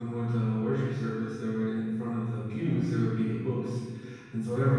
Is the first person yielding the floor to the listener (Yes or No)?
No